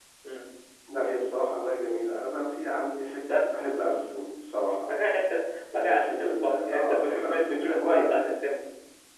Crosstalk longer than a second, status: present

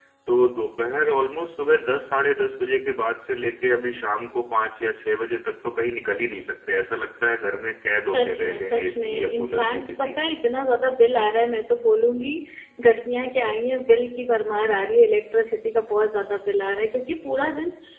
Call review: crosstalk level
present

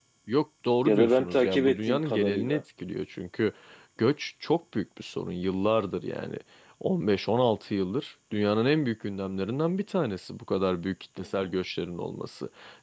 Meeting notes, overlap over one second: present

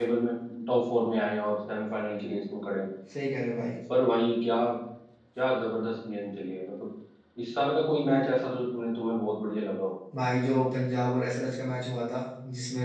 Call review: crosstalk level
none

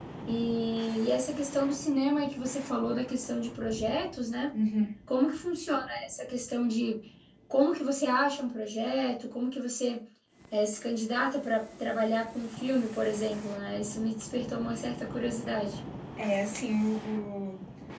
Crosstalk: none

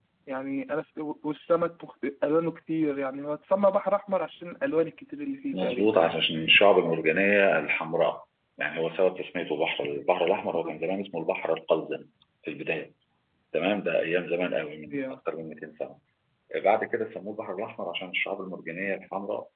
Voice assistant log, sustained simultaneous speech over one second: none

